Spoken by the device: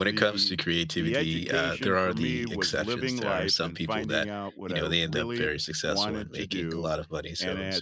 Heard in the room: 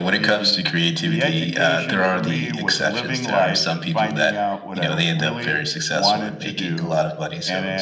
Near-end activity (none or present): none